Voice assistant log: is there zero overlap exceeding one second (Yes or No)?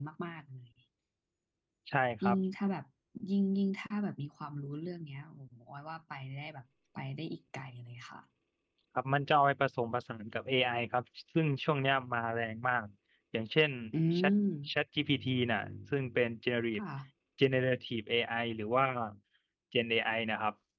Yes